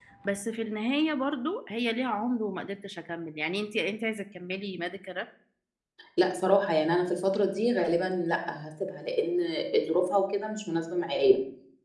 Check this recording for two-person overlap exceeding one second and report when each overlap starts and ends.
none

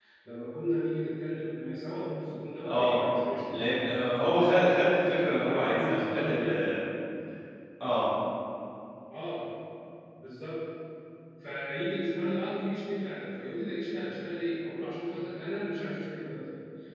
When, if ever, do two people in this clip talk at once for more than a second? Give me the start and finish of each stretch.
5.3-6.5

